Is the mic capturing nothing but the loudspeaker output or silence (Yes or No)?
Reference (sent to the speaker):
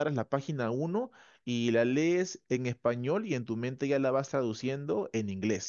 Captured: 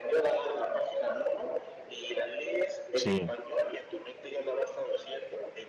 No